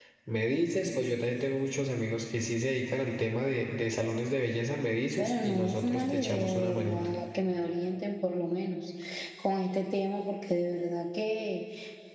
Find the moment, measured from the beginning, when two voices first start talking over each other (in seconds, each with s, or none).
5.2 s